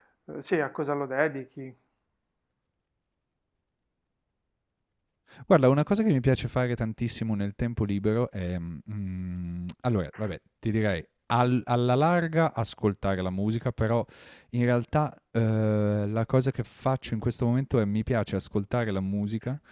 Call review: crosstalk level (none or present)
none